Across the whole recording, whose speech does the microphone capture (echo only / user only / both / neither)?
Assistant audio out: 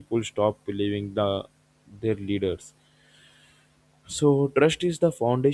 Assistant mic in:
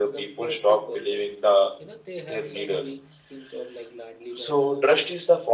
both